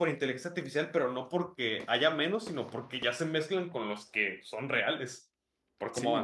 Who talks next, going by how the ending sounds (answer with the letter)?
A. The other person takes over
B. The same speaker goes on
A